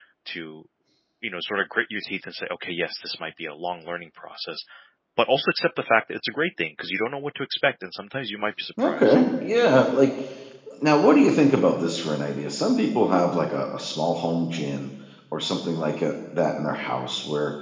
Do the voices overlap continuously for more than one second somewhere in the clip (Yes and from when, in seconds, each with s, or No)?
No